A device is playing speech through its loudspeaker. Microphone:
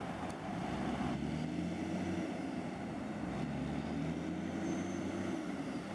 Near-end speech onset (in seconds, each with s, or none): none